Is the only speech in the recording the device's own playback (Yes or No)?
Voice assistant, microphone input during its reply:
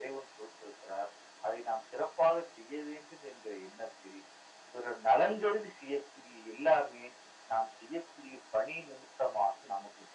Yes